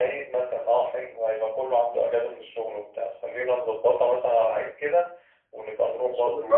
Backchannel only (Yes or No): No